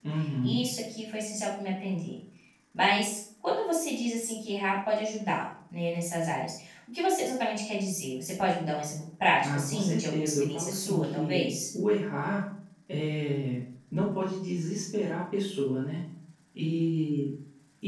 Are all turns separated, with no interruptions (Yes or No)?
No